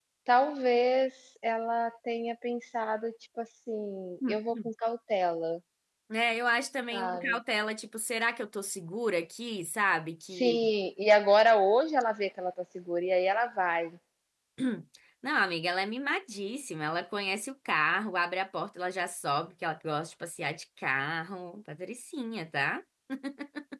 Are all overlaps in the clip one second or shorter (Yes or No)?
Yes